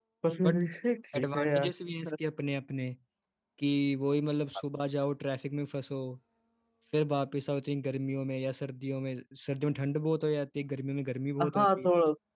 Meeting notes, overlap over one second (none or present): none